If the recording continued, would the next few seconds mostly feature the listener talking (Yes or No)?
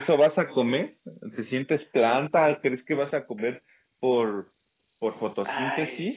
Yes